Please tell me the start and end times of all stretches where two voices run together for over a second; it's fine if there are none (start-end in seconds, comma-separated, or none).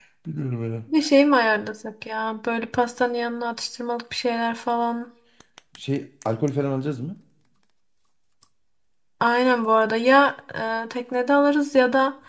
none